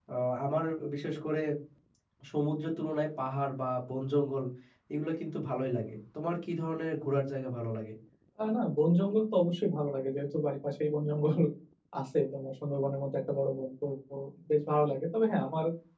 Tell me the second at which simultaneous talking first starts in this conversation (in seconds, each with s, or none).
none